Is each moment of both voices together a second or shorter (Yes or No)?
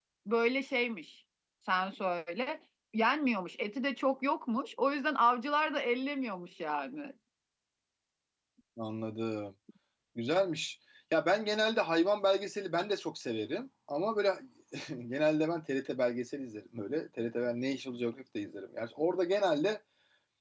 Yes